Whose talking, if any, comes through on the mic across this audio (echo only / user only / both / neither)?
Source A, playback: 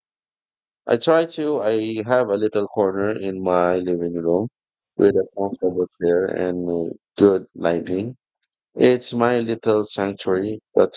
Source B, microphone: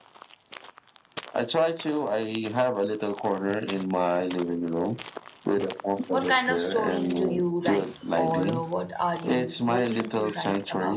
both